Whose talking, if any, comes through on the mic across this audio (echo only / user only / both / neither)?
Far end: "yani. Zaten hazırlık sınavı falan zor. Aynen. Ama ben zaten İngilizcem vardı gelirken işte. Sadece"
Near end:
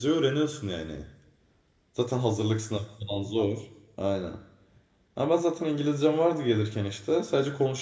echo only